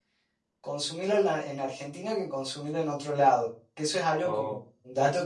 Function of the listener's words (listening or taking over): listening